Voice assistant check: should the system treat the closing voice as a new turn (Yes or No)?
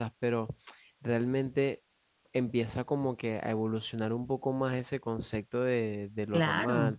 No